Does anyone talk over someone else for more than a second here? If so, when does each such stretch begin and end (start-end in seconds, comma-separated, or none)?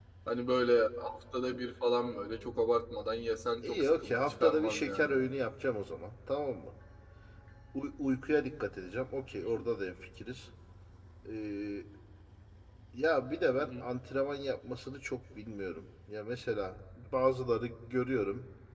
3.6-5.2